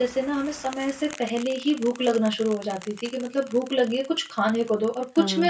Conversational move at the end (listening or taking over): taking over